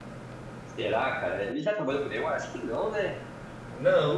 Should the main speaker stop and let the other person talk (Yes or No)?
Yes